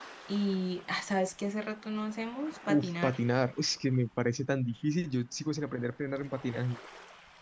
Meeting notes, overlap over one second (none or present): none